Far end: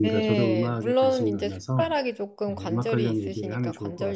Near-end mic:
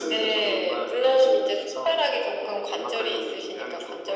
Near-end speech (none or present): none